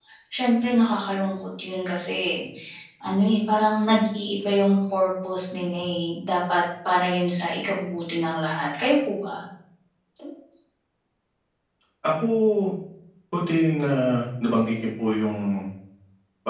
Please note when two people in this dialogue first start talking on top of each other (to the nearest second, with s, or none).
none